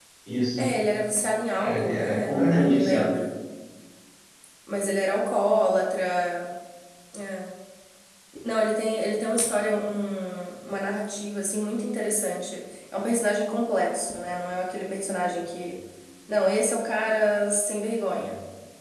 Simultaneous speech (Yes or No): Yes